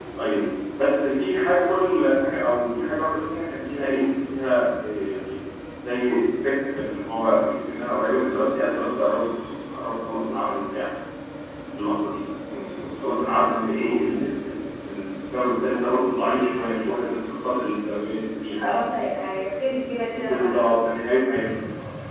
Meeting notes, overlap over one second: none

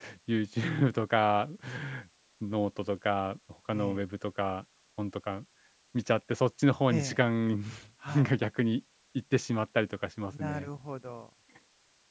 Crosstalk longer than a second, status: none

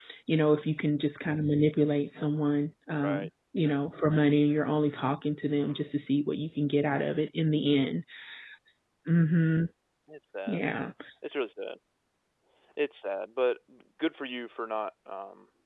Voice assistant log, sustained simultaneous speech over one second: none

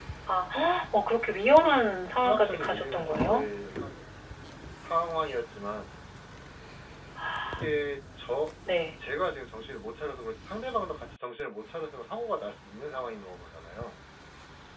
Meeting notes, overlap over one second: present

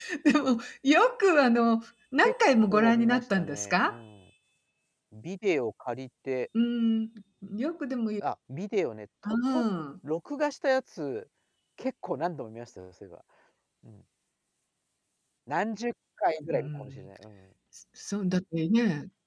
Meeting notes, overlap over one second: present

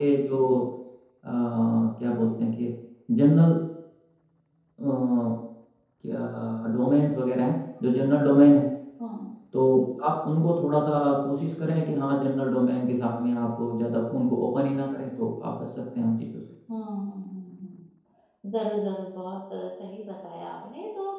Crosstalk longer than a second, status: none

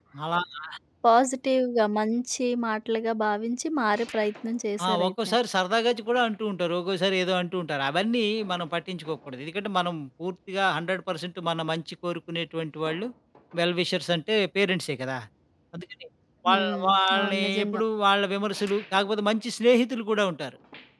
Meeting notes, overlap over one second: present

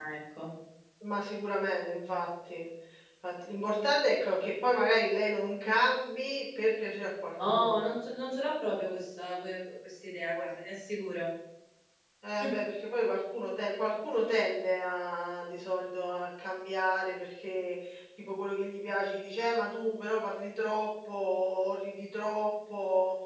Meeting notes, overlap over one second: none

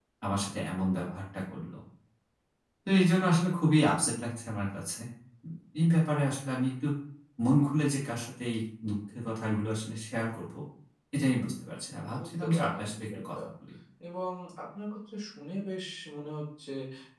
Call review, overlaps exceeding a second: present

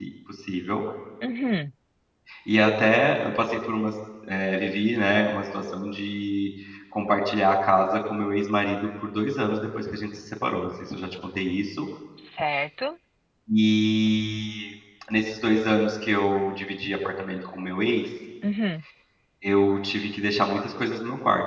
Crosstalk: none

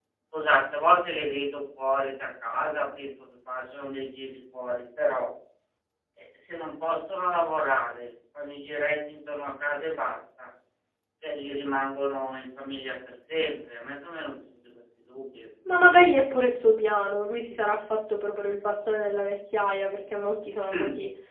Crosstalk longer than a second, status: none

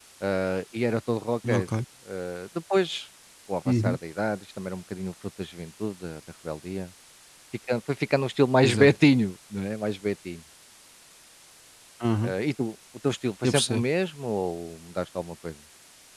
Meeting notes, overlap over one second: none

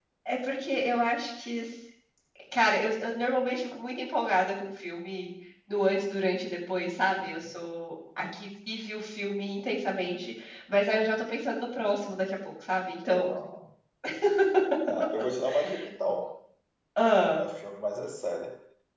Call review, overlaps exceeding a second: none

